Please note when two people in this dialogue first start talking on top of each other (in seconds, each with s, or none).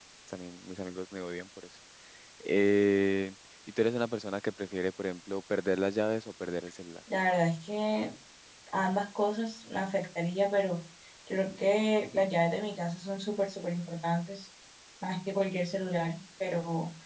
none